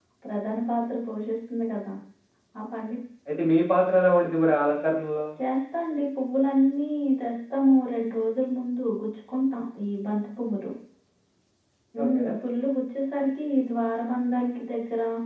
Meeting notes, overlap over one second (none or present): none